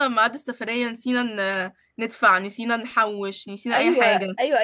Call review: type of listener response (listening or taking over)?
taking over